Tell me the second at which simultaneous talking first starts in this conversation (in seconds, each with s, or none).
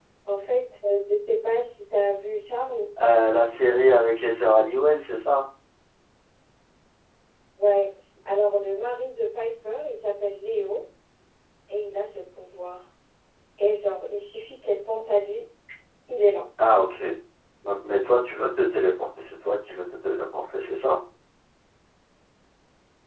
none